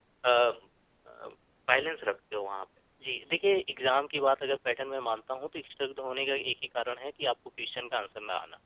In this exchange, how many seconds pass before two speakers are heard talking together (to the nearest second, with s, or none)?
none